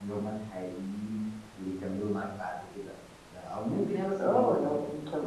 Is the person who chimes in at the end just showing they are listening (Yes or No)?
No